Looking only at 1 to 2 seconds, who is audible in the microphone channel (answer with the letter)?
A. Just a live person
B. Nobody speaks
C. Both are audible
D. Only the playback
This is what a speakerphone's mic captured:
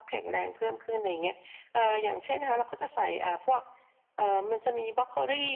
D